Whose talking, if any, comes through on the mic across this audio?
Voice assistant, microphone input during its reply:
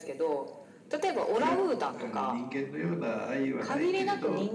both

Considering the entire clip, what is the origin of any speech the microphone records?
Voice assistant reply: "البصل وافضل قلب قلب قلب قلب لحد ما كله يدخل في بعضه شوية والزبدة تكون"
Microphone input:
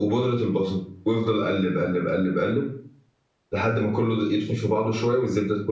echo only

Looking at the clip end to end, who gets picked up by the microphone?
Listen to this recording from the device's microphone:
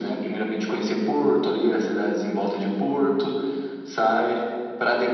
echo only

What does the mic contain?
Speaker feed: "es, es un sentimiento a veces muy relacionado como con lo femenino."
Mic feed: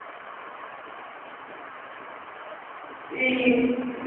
user only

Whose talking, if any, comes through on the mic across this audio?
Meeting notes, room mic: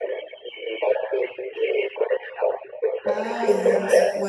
both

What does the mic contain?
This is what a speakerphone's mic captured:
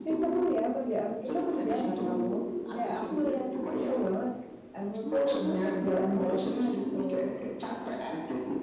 both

